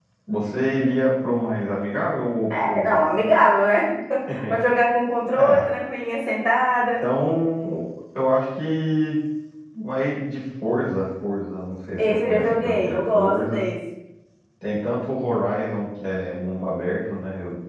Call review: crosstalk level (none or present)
present